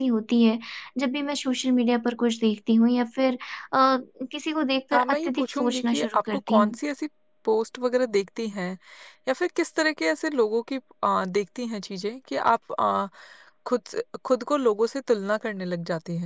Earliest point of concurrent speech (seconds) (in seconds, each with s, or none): 4.9 s